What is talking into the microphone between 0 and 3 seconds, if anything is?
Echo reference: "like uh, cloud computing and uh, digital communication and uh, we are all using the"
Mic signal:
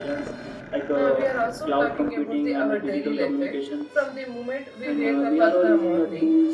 both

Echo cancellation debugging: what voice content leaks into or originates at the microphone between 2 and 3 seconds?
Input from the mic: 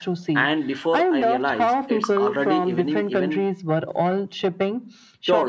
both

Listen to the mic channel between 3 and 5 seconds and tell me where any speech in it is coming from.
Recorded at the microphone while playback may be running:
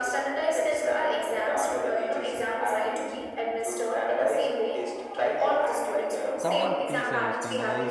echo only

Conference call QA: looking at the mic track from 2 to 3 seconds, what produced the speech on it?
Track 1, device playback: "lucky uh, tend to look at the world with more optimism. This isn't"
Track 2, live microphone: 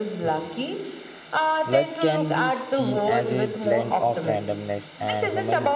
both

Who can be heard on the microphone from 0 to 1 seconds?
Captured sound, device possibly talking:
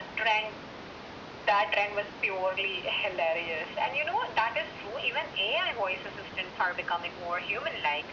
echo only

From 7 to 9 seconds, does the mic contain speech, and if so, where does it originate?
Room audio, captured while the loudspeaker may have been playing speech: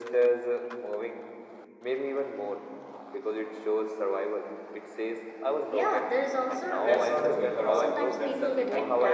both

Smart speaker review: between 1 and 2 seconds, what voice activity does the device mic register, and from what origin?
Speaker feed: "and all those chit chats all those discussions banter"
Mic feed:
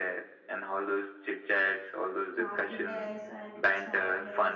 echo only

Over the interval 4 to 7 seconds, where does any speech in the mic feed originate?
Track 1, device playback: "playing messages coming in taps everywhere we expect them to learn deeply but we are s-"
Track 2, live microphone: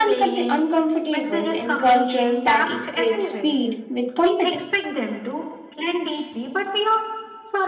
both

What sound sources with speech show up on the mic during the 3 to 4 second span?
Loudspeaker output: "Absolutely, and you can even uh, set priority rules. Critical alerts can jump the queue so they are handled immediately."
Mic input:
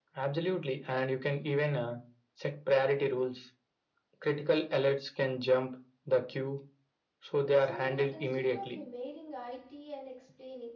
echo only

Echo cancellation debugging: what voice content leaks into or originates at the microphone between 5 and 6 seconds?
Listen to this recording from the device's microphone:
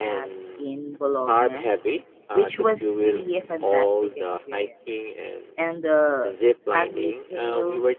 both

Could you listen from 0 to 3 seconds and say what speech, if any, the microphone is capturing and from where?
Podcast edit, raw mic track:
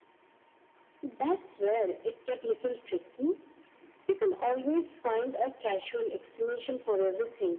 echo only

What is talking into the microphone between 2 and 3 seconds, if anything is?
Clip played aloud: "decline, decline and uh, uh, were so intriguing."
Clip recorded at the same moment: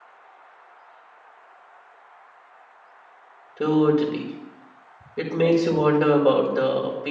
neither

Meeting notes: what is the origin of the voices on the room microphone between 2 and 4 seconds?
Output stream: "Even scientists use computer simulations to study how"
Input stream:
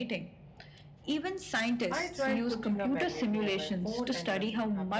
both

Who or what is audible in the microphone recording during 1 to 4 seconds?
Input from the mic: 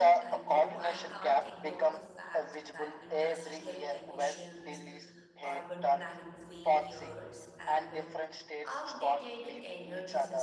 both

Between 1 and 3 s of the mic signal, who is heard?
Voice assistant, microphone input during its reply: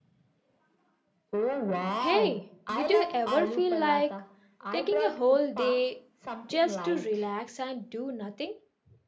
both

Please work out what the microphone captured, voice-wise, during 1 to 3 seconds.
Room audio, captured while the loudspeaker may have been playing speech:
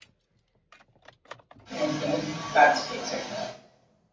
user only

